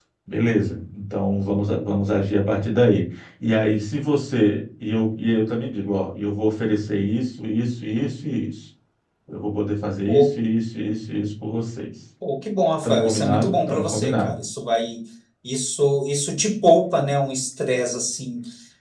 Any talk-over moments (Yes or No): Yes